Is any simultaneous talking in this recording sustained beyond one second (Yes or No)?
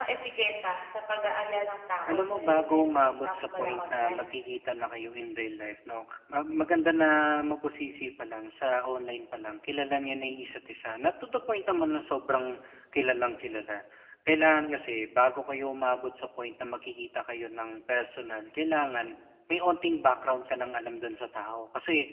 Yes